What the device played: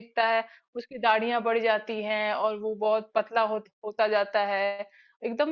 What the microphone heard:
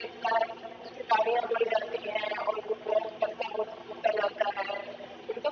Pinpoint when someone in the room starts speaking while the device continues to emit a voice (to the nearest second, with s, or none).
none